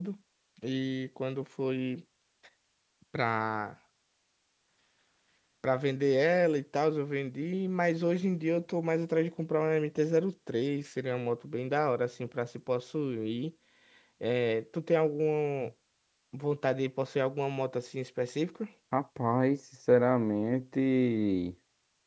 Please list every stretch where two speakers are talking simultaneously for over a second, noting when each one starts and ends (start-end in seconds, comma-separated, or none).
none